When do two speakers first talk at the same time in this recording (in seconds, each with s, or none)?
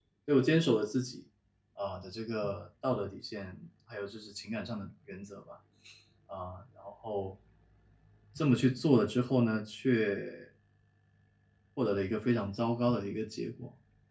none